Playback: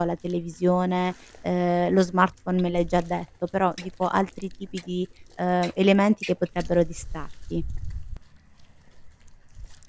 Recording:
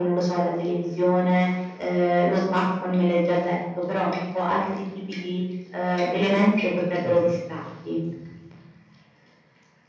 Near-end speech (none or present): present